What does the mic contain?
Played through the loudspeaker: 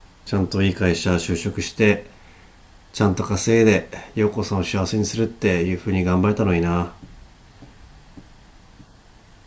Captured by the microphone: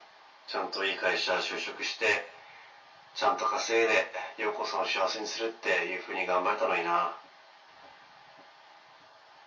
echo only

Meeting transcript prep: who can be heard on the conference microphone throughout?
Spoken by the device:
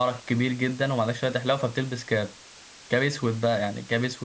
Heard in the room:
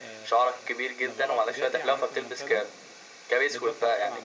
both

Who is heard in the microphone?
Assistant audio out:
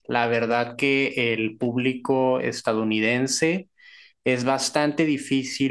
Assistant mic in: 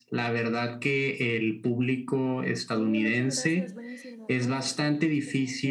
both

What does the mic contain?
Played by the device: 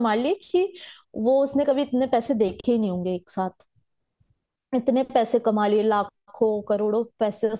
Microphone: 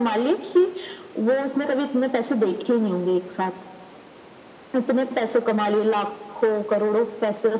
echo only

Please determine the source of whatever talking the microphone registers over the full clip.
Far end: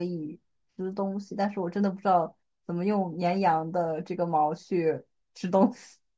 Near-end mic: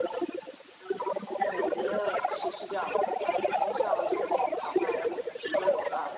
both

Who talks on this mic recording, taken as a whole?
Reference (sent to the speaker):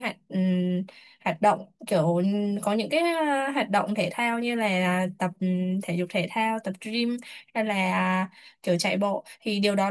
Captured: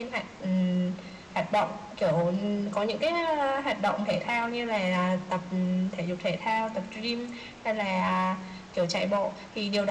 echo only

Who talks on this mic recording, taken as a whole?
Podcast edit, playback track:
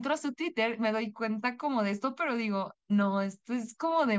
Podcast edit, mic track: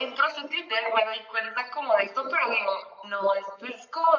echo only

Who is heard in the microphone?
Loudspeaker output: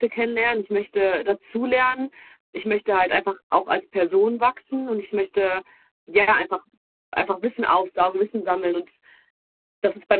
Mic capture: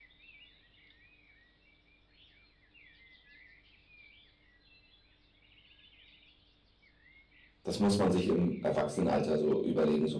user only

